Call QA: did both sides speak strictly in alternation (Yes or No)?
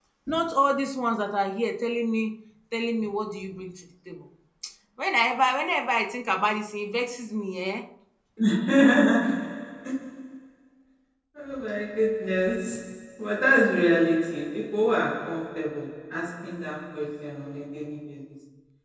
Yes